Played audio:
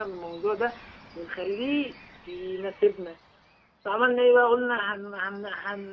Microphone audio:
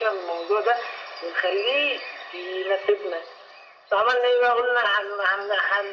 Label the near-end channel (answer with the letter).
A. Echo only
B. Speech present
A